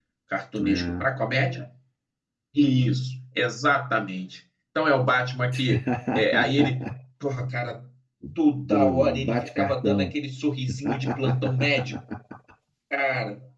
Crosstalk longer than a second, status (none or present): present